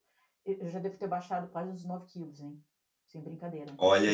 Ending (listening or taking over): taking over